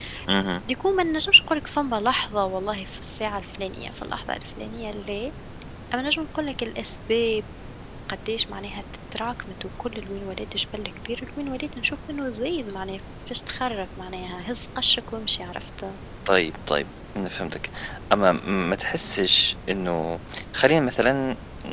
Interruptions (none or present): none